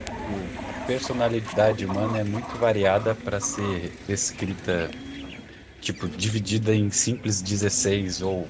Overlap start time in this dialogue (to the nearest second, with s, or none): none